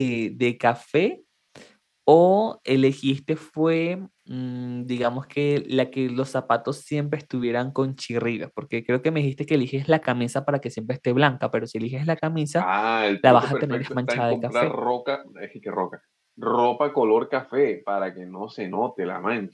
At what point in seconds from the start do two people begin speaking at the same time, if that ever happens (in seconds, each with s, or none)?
13.2 s